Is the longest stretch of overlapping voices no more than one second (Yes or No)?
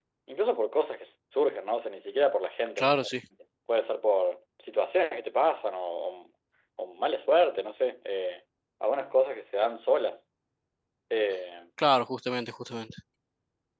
Yes